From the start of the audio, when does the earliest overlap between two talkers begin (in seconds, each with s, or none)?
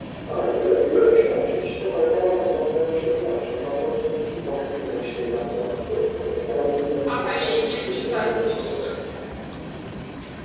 7.1 s